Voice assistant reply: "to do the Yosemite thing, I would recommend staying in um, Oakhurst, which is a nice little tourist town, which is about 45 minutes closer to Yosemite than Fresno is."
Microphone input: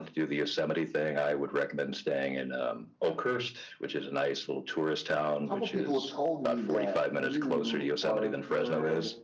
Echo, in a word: present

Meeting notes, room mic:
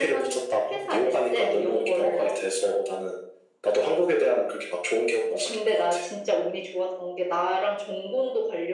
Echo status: present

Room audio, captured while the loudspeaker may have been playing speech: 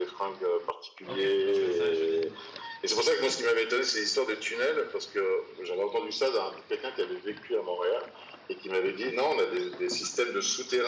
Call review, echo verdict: present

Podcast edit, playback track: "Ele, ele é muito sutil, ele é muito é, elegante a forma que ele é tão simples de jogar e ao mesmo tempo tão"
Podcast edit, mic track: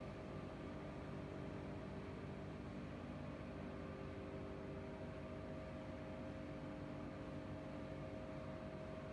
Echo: none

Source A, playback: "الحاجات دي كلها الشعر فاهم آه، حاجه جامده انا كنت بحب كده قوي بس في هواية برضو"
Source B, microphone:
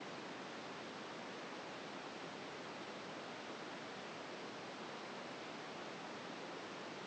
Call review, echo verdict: none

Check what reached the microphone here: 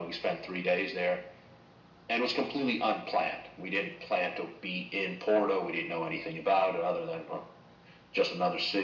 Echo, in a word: present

